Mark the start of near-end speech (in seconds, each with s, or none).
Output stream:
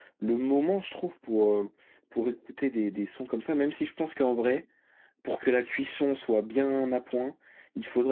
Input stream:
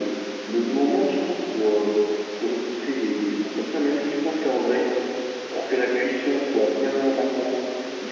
none